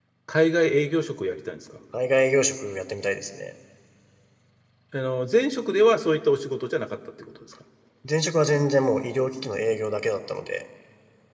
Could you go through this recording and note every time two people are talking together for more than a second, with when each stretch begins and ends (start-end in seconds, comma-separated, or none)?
none